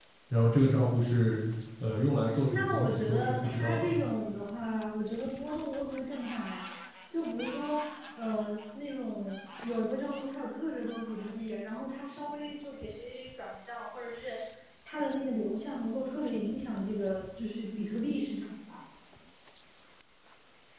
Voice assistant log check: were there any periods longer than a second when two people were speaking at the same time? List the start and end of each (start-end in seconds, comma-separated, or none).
2.5-3.9